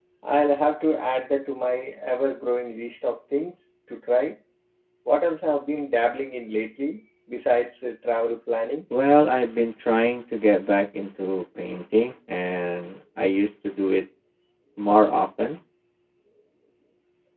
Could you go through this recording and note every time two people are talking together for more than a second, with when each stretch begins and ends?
none

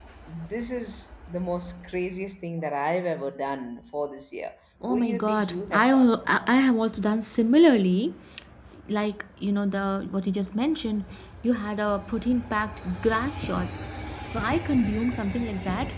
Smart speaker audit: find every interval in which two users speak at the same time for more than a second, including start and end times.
4.9-6.1

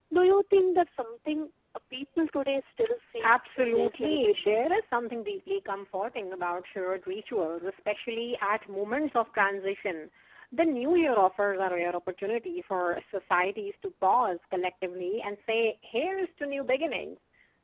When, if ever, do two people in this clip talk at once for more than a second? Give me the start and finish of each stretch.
3.2-4.7

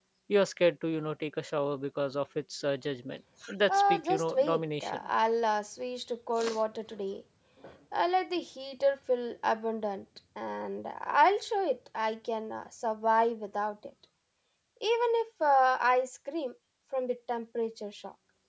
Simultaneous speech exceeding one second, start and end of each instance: 3.7-5.0

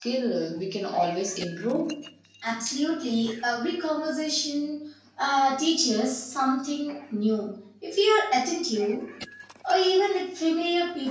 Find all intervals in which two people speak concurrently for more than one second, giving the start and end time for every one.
none

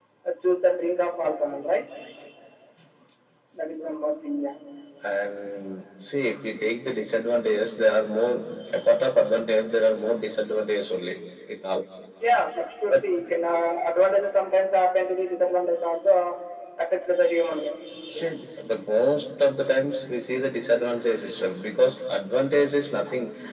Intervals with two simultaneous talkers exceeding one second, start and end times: none

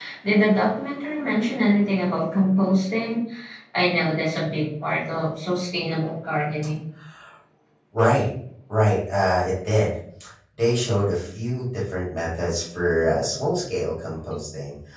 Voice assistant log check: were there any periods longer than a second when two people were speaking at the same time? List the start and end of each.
none

